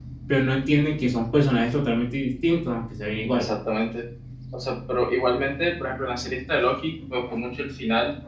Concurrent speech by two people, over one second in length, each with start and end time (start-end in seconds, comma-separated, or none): none